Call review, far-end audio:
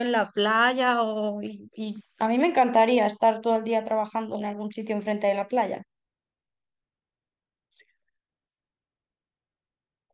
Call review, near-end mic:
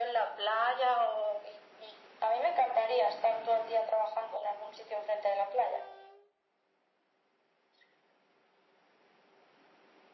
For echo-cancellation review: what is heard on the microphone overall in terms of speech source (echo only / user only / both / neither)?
echo only